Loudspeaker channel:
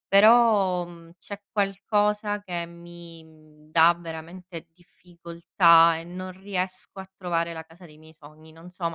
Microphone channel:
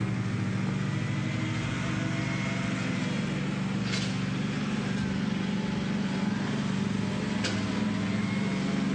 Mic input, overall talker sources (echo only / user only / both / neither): neither